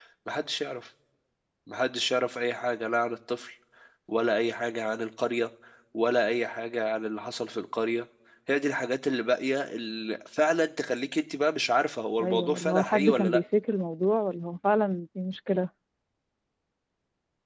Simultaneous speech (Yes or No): Yes